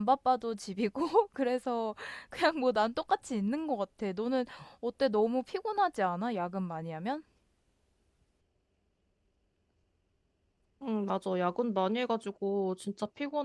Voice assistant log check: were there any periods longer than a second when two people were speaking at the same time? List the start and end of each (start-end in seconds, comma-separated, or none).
none